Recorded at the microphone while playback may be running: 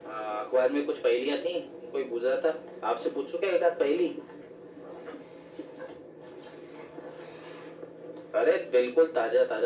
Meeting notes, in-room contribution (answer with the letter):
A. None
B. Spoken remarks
A